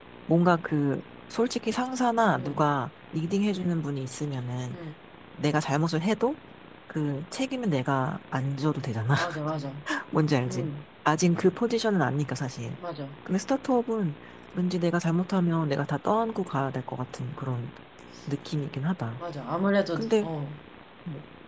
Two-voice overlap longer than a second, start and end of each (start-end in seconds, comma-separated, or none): none